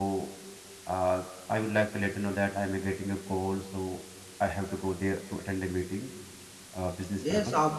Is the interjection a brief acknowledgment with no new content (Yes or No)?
No